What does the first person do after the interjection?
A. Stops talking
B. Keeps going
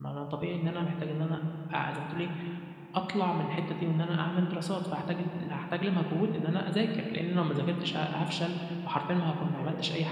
B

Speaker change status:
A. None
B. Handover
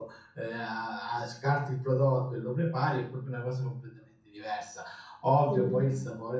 A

